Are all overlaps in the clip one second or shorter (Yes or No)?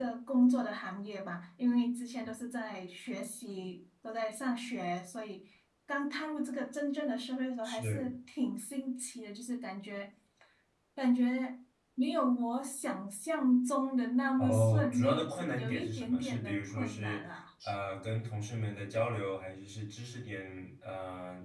No